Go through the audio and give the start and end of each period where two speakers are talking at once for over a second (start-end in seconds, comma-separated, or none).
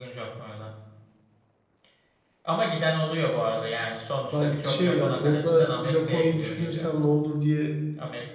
4.3-6.9